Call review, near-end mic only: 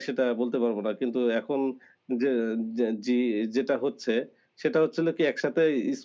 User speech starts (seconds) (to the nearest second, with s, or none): none